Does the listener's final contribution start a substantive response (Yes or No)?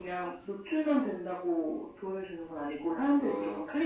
Yes